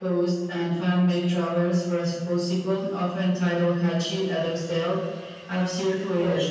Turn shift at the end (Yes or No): No